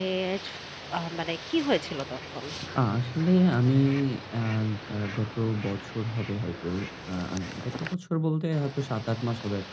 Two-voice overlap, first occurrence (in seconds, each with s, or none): none